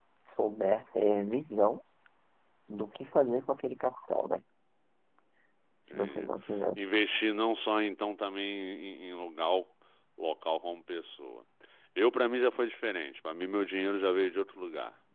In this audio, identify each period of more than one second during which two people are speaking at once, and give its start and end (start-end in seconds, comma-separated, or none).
none